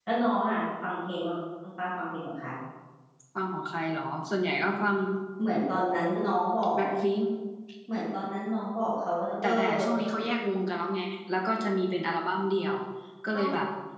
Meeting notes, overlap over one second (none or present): none